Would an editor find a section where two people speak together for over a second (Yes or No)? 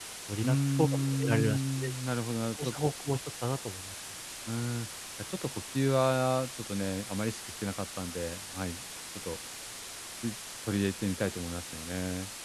Yes